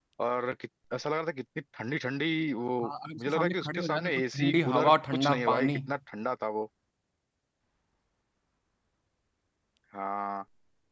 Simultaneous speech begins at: 3.2 s

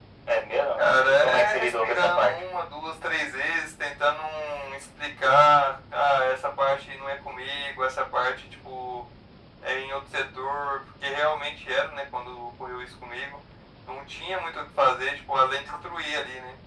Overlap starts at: 0.8 s

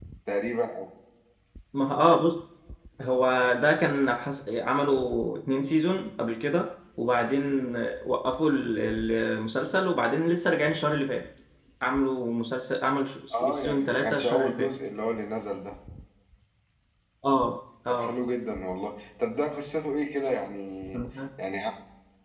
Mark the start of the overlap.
13.3 s

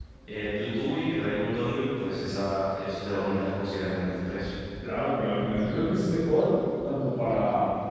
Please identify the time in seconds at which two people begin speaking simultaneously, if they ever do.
none

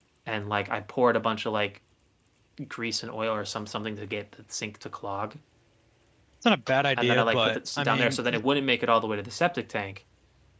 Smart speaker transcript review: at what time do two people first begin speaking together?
7.0 s

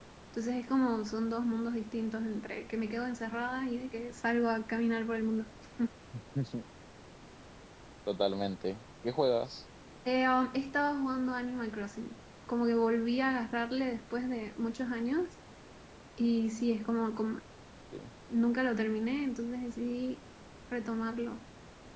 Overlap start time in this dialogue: none

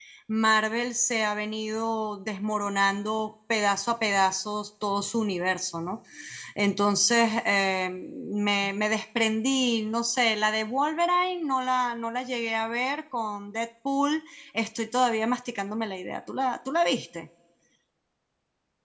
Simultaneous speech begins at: none

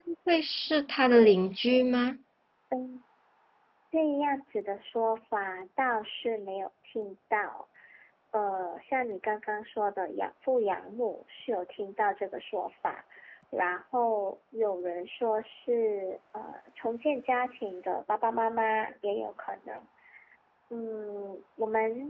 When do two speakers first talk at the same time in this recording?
none

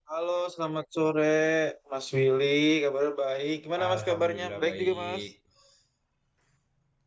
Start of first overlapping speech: 3.8 s

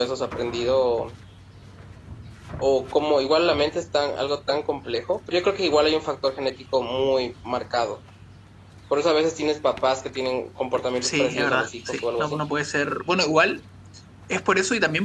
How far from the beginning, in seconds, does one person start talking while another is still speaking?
11.0 s

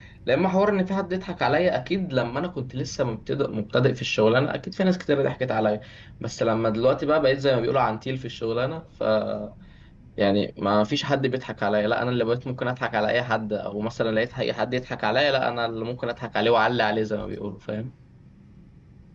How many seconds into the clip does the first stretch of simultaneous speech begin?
none

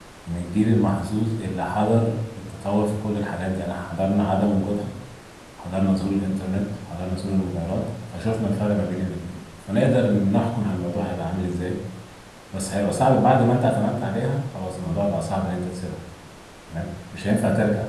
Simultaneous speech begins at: none

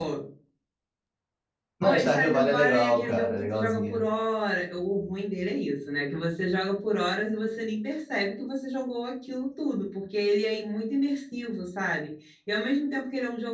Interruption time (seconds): 1.8 s

